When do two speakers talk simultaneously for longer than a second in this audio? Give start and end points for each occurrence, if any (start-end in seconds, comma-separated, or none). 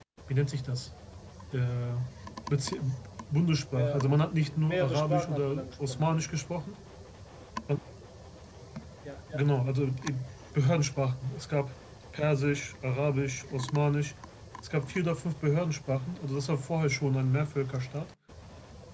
3.8-6.3